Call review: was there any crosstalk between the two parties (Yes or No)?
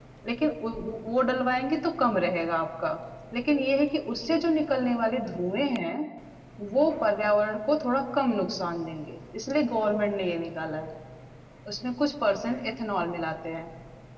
No